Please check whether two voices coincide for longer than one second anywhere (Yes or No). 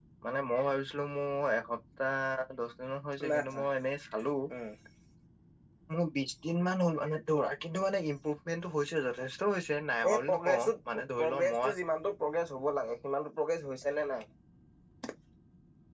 Yes